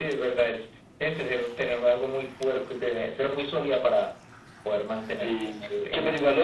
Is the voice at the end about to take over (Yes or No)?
Yes